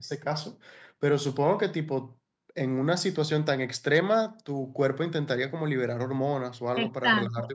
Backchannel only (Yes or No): No